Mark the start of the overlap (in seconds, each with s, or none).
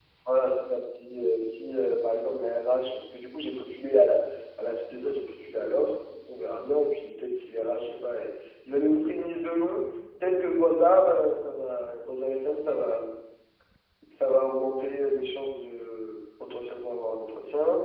none